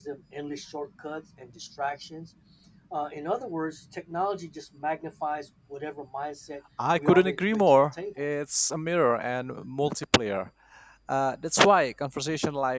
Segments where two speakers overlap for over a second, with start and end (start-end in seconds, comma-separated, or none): 7.0-8.2